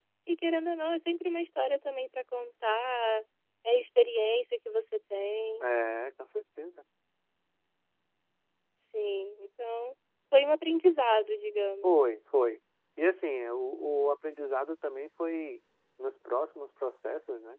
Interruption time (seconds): none

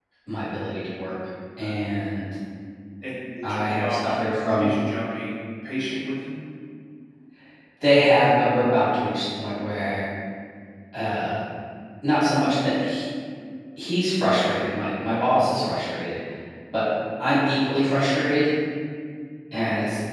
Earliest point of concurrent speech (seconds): 3 s

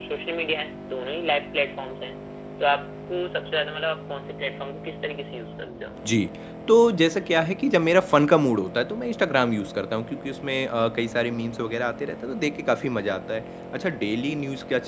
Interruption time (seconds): none

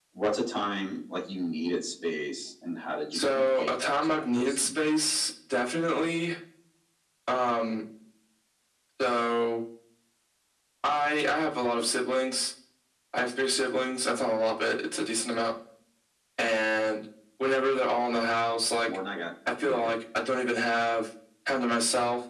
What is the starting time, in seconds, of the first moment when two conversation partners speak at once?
3 s

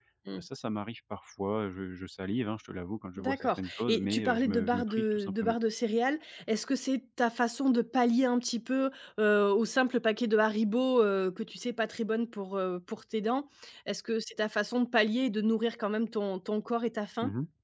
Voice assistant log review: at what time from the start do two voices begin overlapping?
3 s

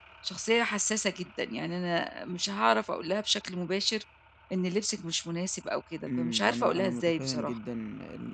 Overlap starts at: 6 s

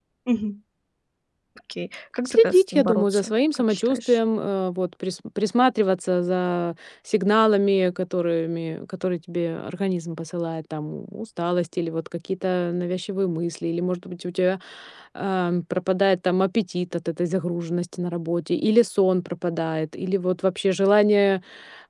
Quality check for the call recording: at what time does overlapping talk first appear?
2 s

